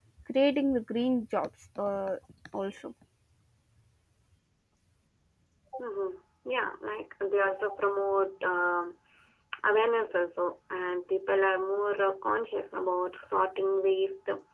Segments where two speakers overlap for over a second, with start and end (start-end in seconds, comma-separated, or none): none